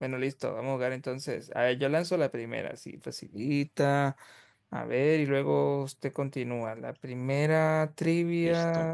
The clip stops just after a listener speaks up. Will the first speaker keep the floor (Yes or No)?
Yes